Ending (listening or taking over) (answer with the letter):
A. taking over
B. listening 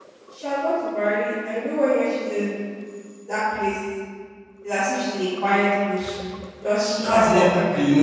A